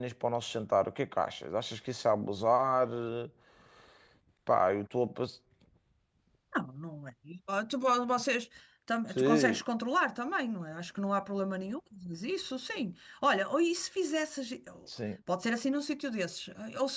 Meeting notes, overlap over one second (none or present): none